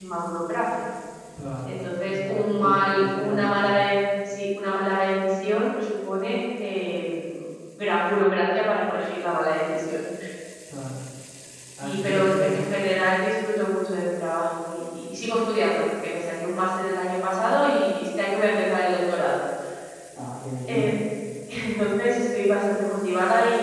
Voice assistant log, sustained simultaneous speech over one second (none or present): present